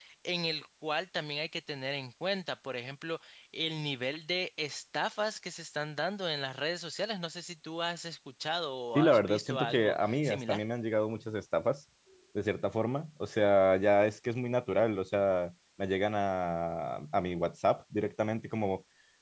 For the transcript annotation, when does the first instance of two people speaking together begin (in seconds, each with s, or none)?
8.9 s